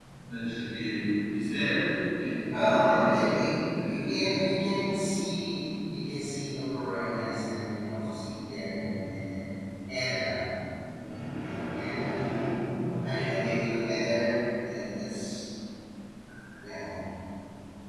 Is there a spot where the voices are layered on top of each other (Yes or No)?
Yes